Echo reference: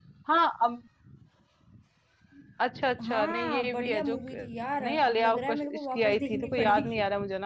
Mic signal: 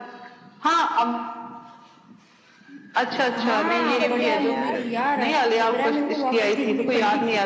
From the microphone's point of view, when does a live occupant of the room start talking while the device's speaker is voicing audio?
3.2 s

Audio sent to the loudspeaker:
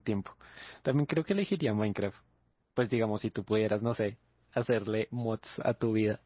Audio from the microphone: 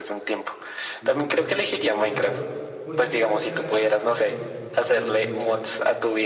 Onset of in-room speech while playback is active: 1.0 s

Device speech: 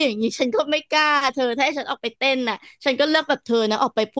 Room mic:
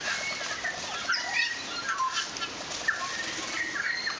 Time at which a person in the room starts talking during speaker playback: none

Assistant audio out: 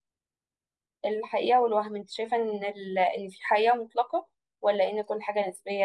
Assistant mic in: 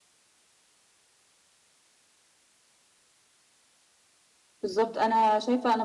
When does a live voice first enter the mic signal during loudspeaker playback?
4.6 s

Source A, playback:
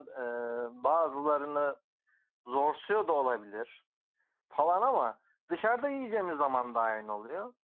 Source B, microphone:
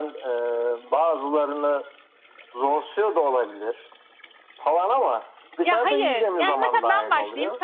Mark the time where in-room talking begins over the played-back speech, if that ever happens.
5.6 s

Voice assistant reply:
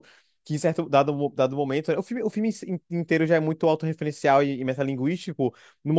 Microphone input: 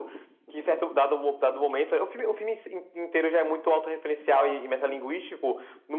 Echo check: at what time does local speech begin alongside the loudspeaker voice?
4.3 s

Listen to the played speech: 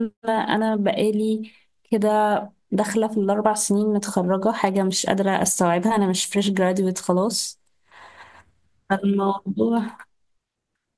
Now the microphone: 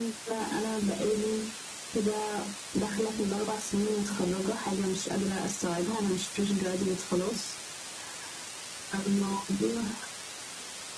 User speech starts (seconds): none

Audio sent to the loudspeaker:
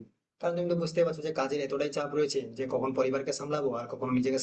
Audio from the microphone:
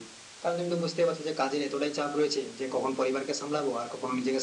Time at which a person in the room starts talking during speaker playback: none

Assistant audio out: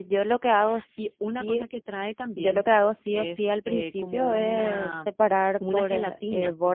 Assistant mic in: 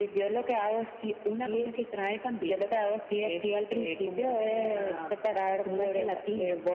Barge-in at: none

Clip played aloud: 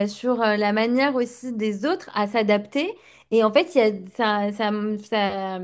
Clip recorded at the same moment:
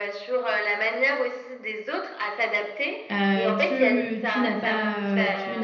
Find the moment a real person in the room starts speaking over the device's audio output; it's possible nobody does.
3.1 s

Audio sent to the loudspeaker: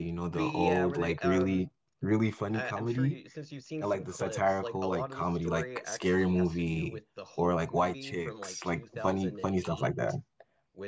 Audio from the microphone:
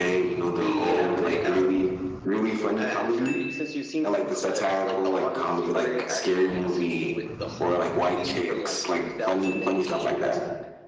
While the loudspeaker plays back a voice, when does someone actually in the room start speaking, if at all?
none

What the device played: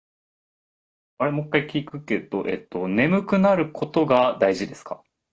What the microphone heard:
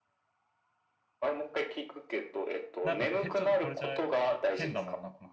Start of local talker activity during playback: 2.8 s

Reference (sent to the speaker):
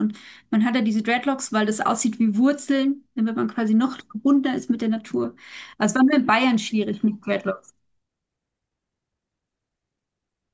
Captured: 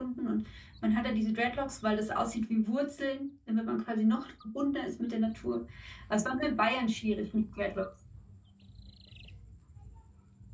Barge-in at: none

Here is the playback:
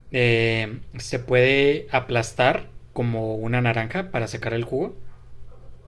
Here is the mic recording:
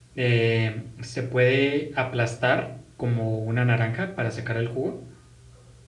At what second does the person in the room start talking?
none

